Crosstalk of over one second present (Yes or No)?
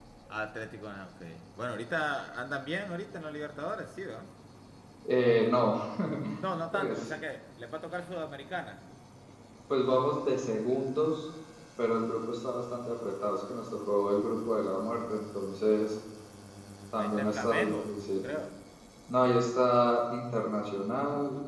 Yes